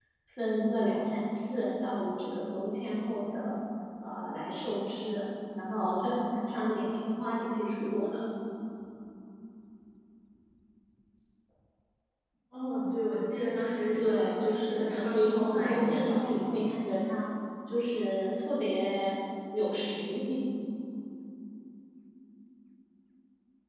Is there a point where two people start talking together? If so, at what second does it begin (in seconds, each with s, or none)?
13.9 s